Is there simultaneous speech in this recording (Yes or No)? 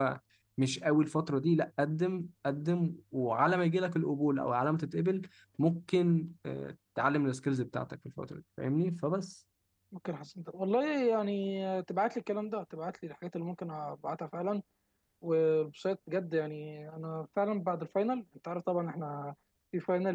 No